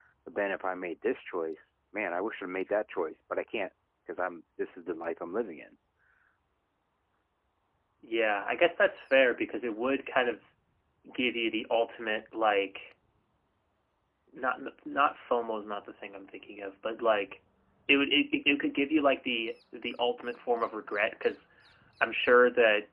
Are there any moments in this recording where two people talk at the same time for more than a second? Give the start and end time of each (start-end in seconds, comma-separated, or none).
none